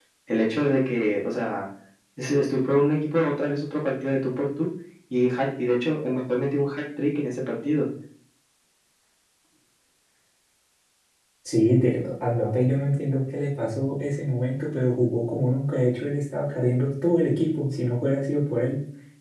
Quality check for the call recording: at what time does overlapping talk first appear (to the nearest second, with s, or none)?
none